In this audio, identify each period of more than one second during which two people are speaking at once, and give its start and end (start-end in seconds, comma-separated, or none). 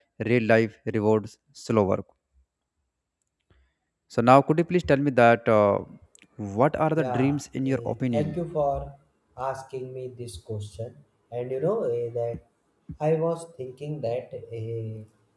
7.0-8.4